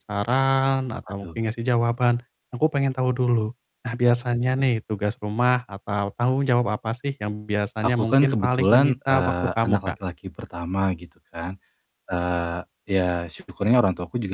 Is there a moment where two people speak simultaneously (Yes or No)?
Yes